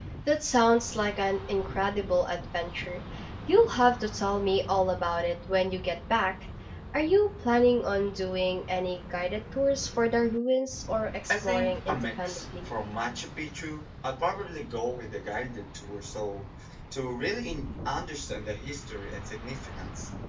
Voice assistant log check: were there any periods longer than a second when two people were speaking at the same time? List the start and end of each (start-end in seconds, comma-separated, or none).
11.3-12.7